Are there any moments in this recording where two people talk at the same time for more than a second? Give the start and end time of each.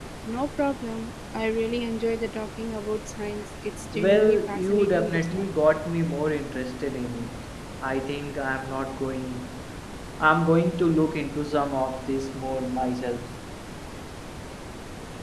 3.9-5.5

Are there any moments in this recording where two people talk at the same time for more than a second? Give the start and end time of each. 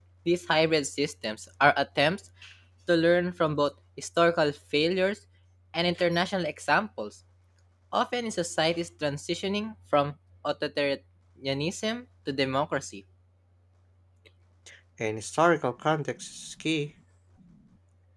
none

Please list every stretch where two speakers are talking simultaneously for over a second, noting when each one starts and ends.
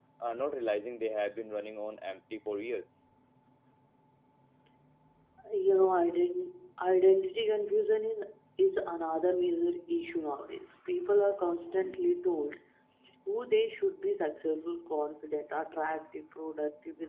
none

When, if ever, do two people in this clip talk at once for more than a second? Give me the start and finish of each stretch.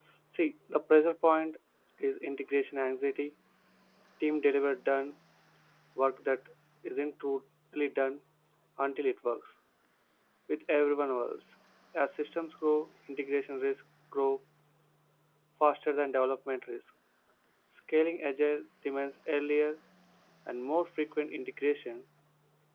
none

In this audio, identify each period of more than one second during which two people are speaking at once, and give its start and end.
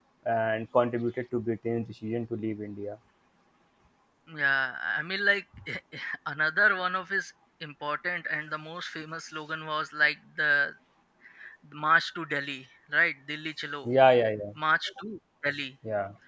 none

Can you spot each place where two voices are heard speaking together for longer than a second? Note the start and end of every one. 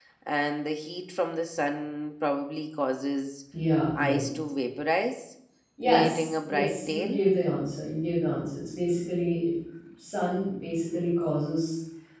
5.9-7.2

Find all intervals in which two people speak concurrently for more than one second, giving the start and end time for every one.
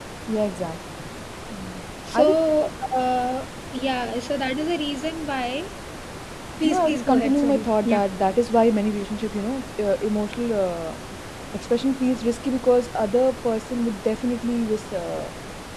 6.6-8.0

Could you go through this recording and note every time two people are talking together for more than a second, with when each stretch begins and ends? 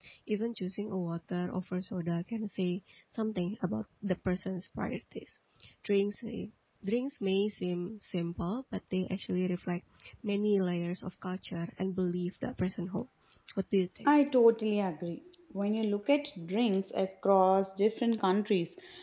none

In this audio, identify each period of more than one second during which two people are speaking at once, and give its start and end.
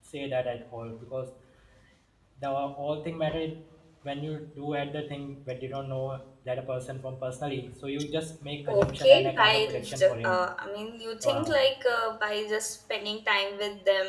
8.8-10.4

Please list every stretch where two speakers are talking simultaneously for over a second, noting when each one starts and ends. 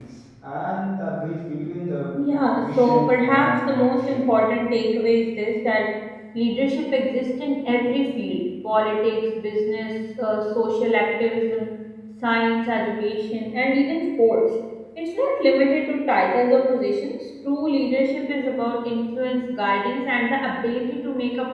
2.6-4.3

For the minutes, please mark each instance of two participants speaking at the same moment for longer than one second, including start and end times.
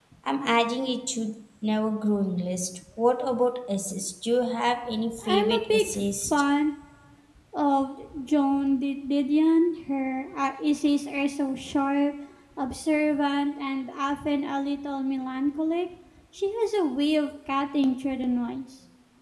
5.2-6.4

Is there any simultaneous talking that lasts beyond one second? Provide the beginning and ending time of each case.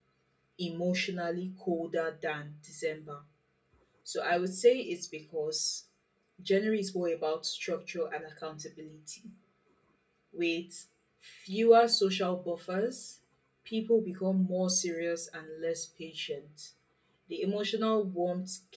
none

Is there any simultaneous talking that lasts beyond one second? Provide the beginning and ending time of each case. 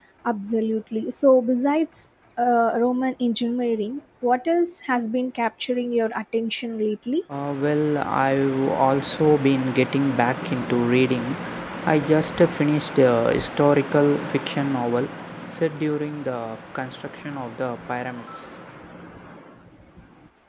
none

